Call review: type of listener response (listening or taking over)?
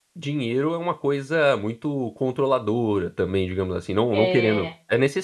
listening